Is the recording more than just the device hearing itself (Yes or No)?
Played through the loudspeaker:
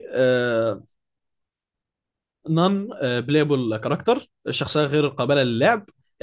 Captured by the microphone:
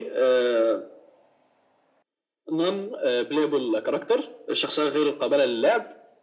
No